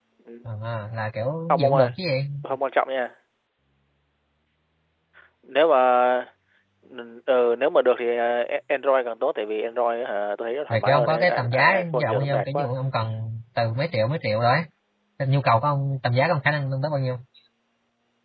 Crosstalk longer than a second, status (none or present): present